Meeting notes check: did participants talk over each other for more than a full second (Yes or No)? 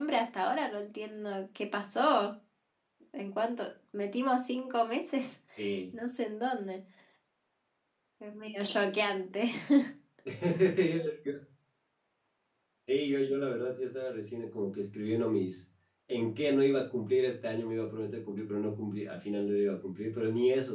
No